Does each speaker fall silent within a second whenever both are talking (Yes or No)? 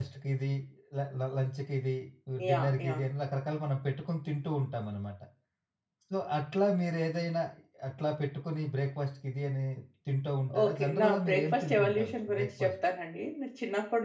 No